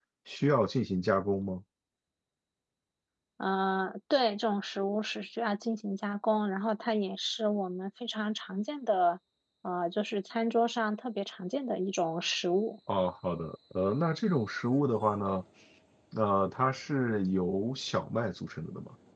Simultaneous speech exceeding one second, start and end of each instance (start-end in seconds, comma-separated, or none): none